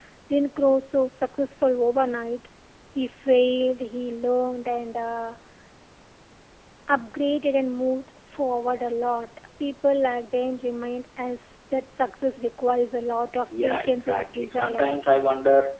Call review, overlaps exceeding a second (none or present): present